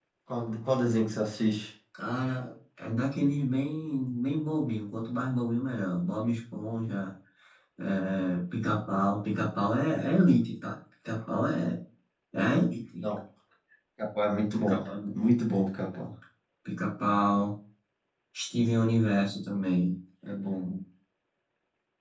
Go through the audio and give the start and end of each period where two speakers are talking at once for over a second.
none

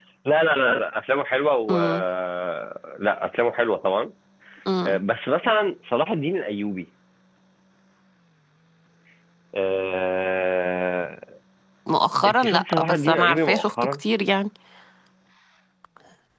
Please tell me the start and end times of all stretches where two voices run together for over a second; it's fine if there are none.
12.2-13.9

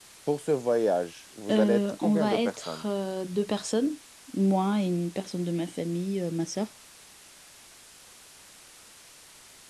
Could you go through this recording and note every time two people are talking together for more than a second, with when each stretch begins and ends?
1.5-2.9

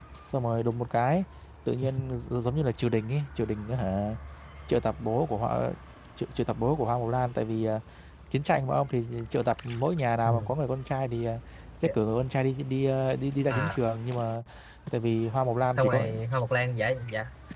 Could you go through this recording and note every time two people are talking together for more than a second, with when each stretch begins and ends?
none

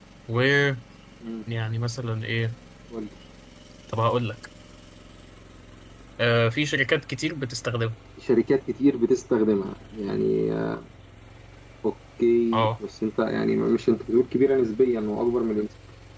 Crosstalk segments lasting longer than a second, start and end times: none

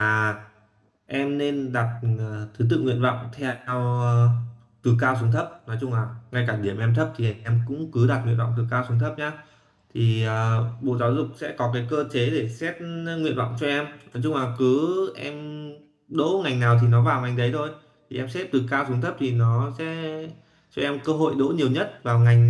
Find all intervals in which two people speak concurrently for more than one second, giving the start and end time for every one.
none

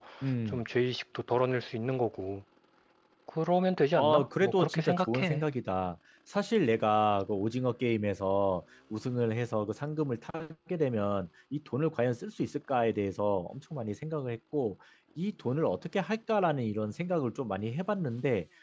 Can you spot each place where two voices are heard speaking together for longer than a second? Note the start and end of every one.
4.0-5.4

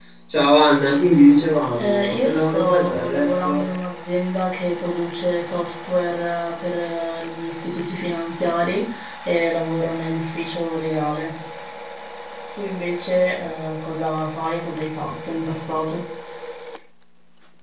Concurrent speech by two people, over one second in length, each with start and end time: 1.7-3.6

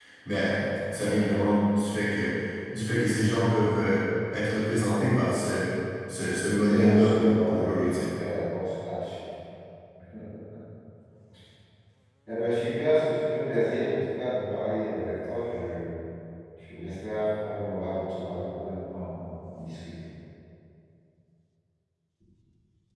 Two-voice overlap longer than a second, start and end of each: 6.6-8.0

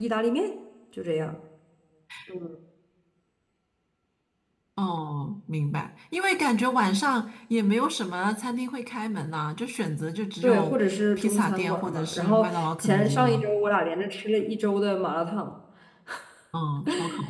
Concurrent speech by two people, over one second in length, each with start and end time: 11.2-13.5

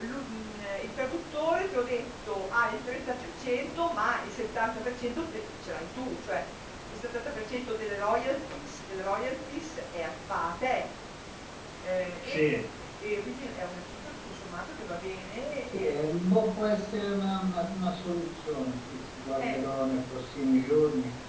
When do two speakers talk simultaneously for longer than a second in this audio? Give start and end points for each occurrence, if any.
none

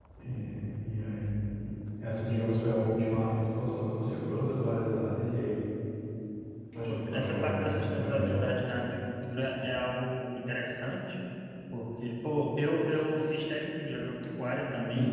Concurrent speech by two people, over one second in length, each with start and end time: 6.8-8.5

